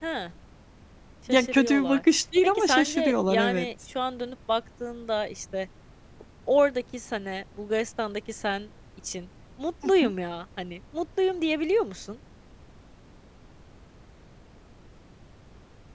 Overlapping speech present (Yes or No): Yes